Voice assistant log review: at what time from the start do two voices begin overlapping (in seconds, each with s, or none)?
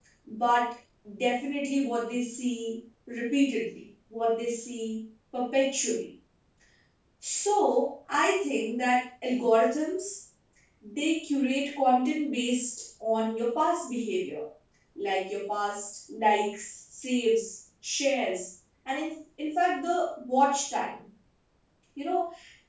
none